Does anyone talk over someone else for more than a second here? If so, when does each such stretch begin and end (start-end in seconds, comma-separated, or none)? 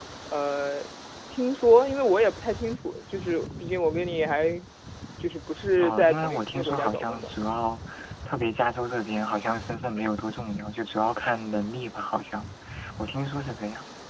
5.8-7.3